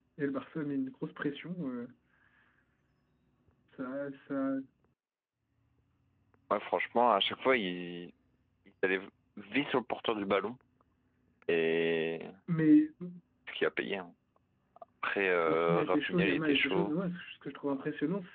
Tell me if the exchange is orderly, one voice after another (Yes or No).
No